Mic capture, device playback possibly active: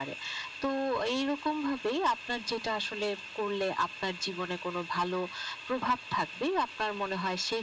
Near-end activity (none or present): none